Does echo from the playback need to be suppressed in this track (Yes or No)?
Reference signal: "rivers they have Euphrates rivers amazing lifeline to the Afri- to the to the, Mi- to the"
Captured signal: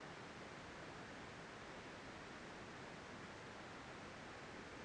No